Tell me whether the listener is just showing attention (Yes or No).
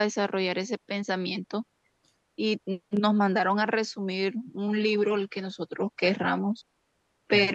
Yes